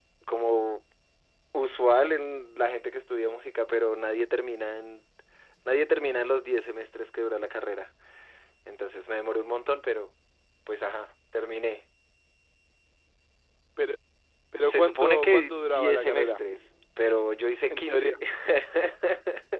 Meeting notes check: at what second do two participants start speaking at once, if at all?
14.6 s

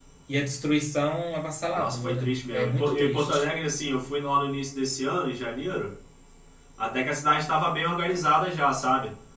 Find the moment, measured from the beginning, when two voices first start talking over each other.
1.7 s

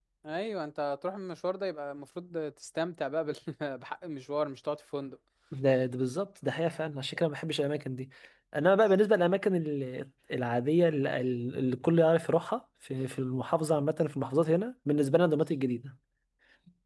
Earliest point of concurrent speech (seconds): none

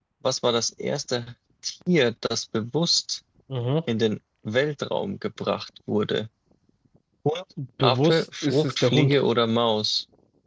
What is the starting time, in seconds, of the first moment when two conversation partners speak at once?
7.8 s

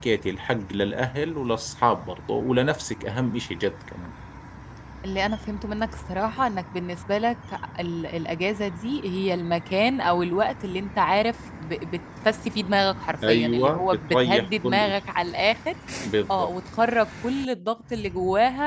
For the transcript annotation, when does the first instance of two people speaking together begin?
13.3 s

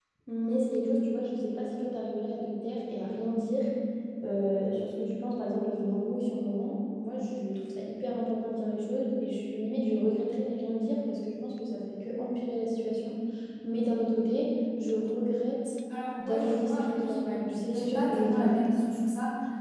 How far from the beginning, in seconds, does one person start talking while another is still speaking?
16.2 s

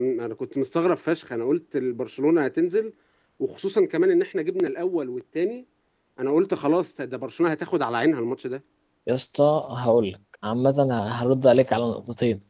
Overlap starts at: none

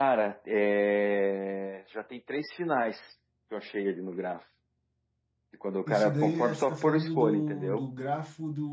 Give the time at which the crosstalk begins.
5.9 s

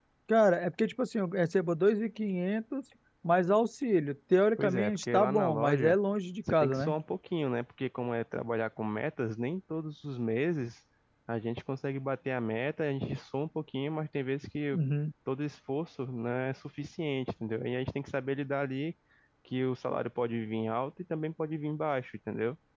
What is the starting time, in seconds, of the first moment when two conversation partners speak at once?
4.6 s

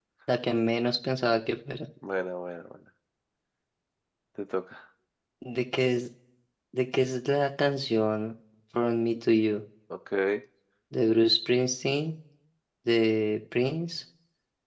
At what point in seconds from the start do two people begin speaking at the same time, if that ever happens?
none

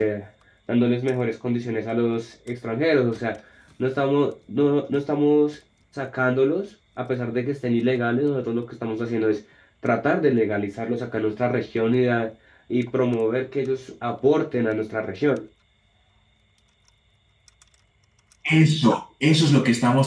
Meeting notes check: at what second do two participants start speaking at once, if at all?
none

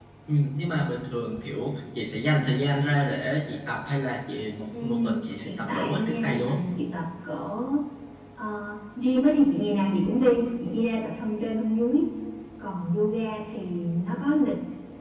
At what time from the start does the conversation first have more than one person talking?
4.7 s

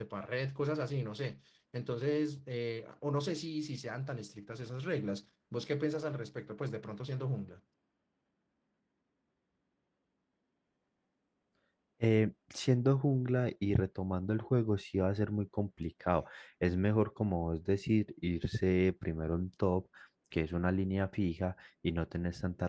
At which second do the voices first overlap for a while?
none

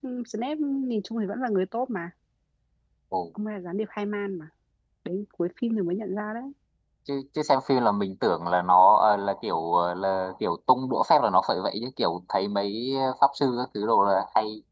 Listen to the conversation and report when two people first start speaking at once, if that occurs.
none

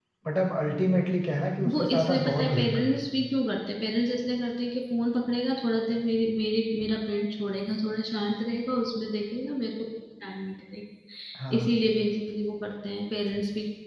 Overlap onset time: 1.6 s

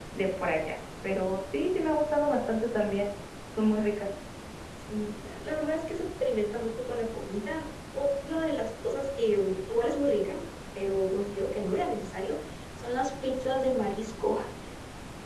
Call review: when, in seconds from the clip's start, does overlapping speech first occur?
none

